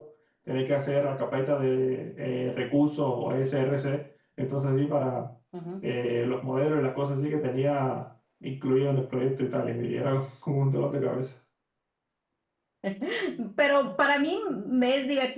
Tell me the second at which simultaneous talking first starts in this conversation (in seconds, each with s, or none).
none